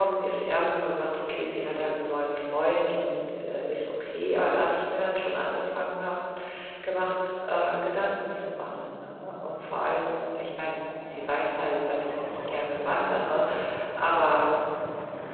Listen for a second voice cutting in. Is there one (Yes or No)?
No